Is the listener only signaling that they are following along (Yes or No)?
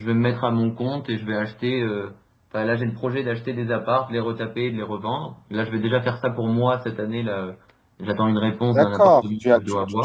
No